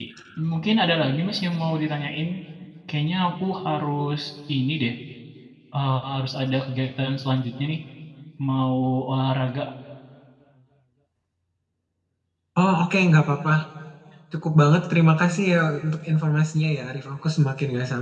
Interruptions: none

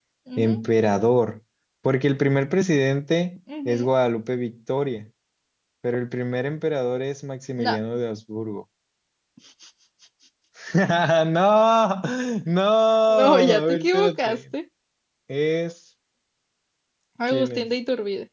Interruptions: present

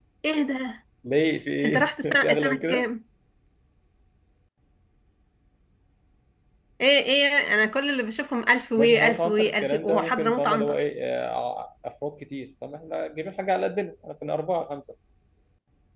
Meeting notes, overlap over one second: present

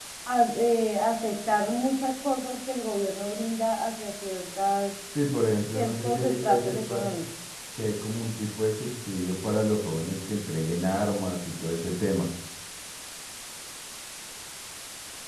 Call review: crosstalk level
present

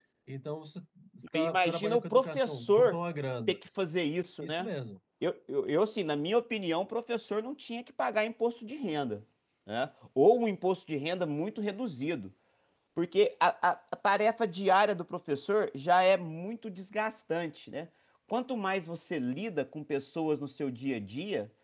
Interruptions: present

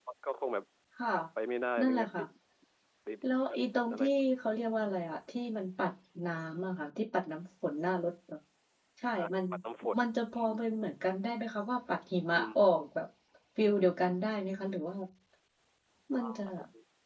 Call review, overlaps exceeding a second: none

